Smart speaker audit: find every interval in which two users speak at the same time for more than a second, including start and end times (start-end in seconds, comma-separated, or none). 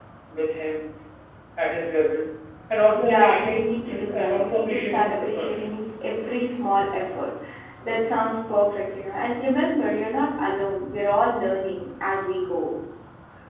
2.9-5.7